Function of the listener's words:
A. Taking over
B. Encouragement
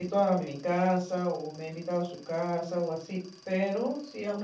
A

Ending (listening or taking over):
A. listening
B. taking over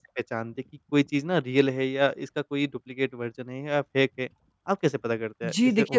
B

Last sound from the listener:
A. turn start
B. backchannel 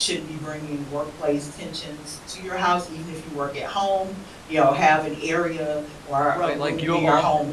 A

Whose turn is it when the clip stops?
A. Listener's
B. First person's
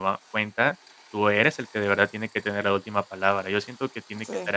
B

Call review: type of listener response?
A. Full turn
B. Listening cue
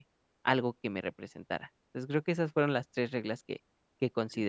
A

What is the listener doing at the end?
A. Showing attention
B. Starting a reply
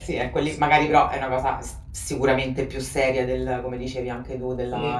B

